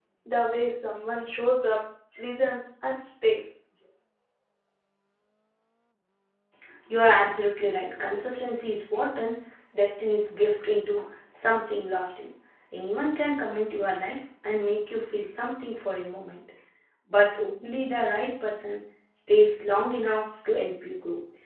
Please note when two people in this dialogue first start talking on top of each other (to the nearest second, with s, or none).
none